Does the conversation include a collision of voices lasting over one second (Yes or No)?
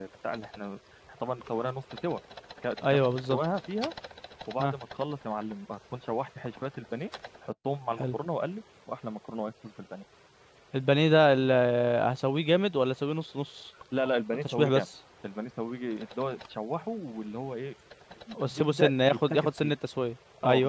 Yes